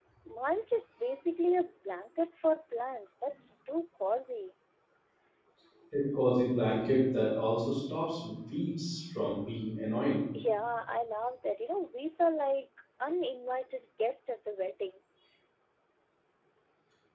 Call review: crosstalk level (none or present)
none